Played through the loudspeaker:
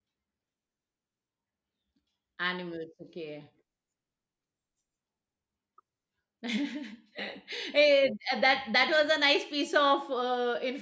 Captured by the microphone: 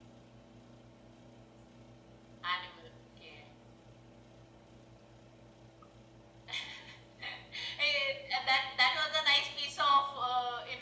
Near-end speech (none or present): none